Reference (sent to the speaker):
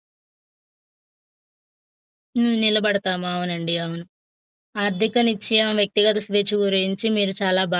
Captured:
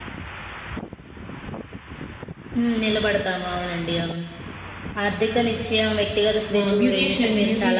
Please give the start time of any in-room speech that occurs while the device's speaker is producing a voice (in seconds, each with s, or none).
6.6 s